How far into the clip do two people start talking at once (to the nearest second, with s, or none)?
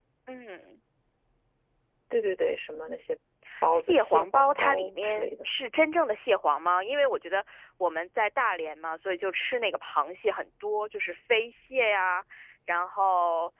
4 s